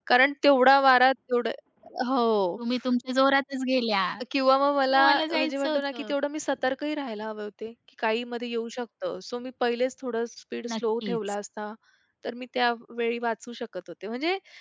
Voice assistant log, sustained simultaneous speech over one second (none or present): present